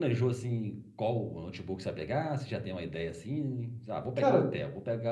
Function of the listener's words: listening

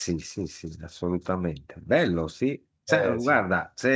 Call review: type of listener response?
listening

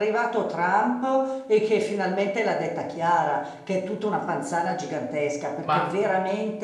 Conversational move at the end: listening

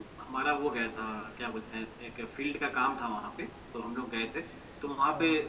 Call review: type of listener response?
listening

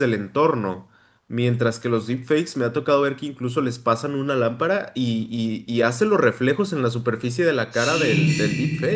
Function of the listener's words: taking over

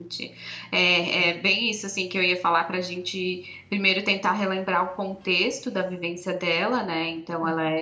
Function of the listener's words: listening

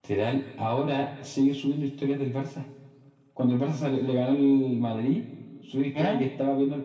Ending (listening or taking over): listening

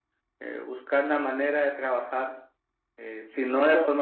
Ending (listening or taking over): listening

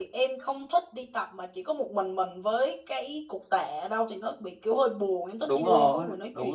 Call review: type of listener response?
taking over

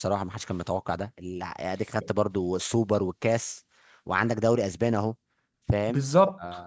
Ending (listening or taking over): taking over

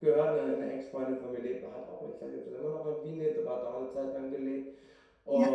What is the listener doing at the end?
listening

